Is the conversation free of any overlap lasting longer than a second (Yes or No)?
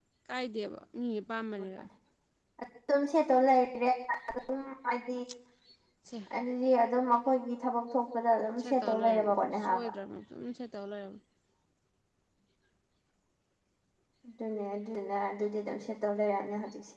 No